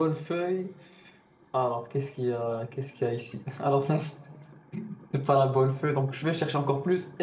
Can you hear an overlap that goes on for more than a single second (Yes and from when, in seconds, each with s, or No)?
No